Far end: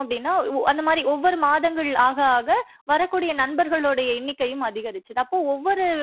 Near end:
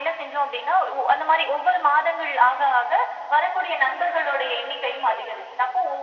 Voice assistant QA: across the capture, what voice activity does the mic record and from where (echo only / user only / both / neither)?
echo only